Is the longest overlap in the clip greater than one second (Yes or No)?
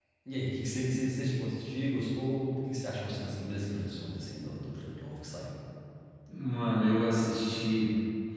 No